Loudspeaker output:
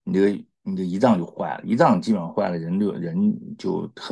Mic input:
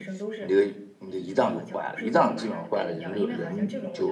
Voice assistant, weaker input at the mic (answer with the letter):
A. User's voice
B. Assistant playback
A